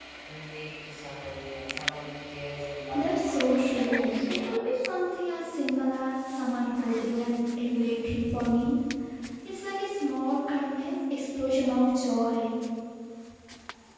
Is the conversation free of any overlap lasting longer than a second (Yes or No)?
No